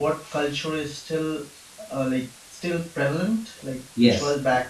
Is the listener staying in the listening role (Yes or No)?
No